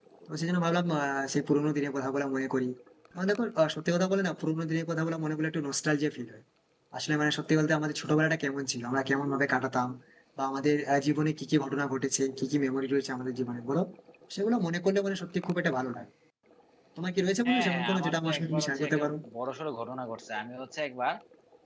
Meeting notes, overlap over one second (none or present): present